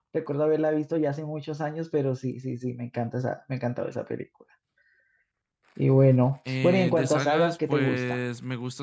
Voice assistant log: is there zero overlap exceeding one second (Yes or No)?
No